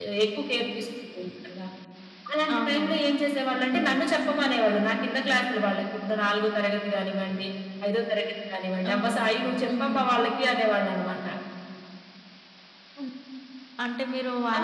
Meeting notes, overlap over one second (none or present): none